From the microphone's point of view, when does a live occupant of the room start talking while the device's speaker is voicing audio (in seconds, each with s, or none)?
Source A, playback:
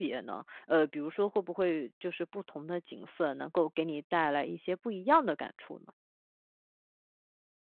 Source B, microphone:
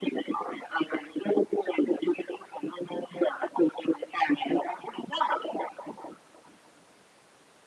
none